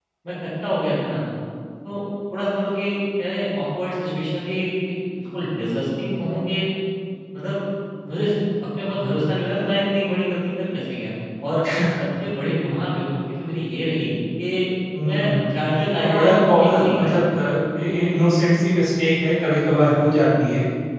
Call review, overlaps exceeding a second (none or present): present